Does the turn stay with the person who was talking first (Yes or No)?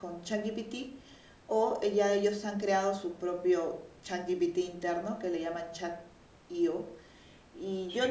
Yes